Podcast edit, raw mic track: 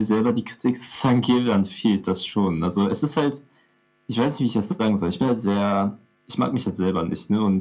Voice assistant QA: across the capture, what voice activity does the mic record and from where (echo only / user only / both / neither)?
echo only